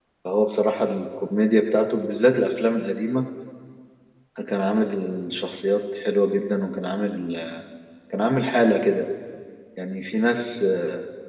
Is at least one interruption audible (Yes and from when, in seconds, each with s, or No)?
No